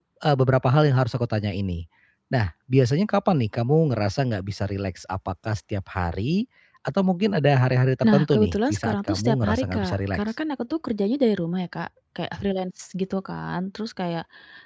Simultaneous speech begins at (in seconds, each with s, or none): 8.0 s